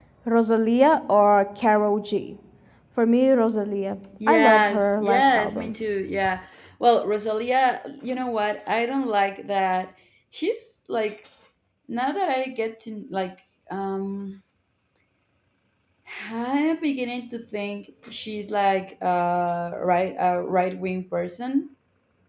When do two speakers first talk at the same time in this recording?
4.2 s

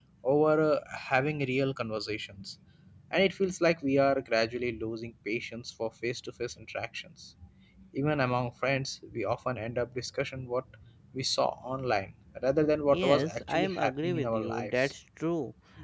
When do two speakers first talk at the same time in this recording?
12.7 s

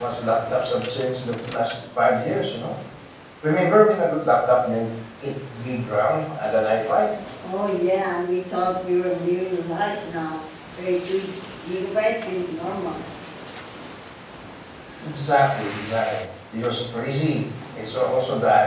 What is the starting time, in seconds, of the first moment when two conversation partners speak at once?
none

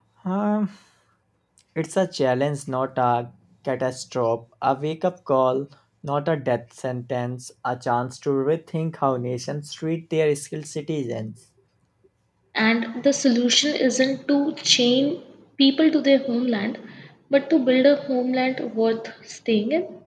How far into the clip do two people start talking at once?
none

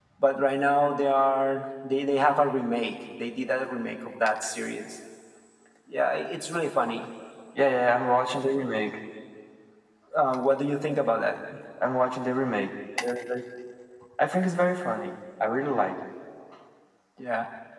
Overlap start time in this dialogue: none

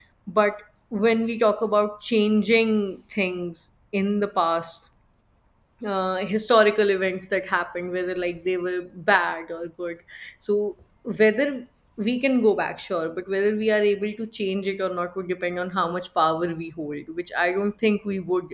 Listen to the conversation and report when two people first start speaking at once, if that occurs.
none

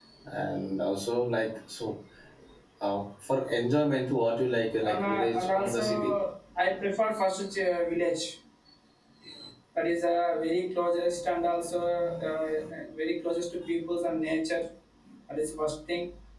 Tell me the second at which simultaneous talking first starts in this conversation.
4.8 s

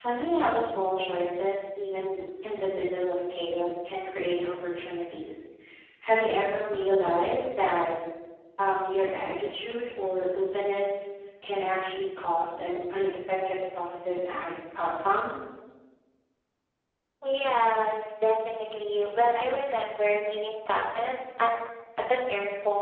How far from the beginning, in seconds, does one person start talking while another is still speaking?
none

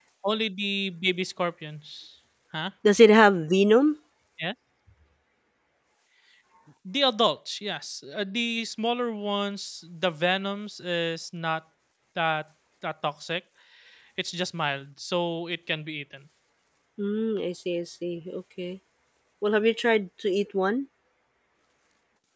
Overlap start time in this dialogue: none

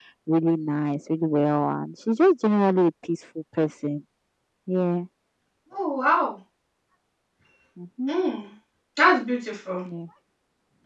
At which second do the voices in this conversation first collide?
none

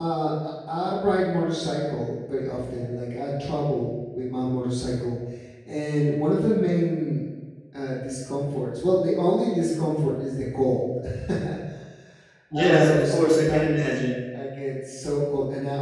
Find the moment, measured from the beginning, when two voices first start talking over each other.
12.6 s

